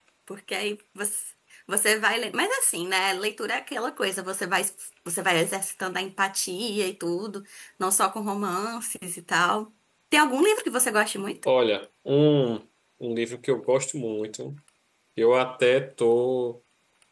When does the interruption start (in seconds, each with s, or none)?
none